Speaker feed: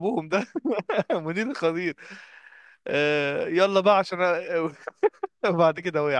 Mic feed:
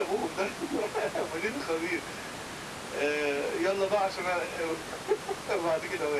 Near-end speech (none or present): none